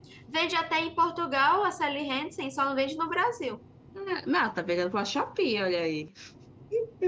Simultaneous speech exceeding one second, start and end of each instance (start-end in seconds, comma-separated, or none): none